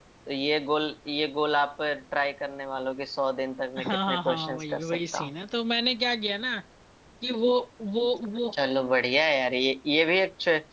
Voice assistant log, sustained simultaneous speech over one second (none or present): present